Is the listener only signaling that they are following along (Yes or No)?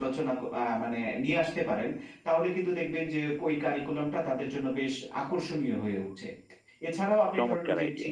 Yes